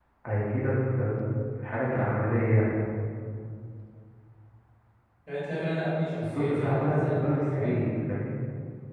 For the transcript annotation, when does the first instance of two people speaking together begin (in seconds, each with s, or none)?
6.2 s